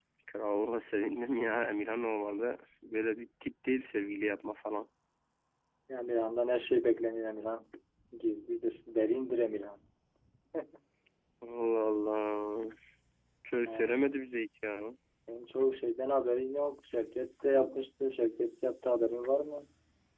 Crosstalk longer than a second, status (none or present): none